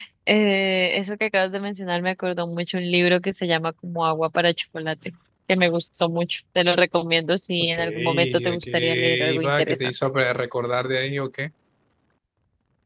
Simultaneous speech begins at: 7.7 s

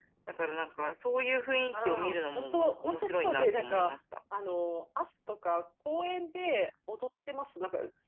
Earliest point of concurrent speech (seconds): 1.7 s

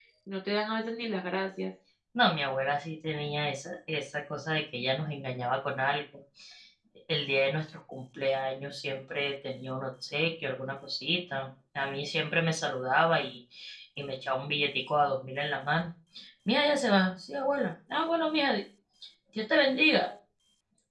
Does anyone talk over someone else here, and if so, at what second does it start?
none

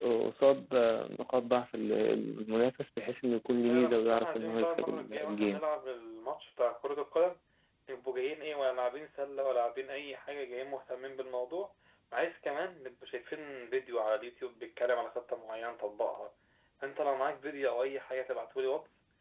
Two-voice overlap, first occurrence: 3.7 s

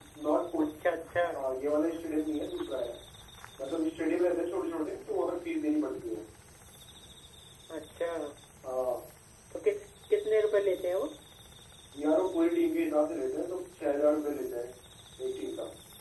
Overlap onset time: none

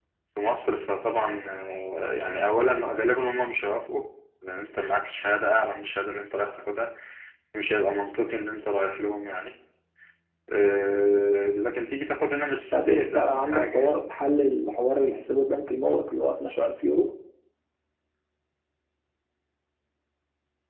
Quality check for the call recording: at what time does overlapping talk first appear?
12.7 s

